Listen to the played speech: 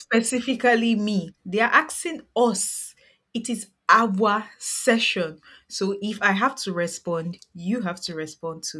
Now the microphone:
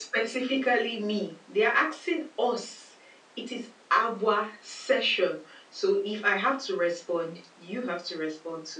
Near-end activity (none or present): none